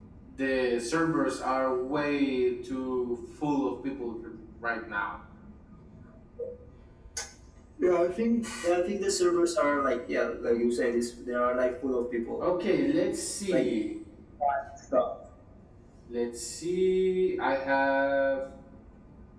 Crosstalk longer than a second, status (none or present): none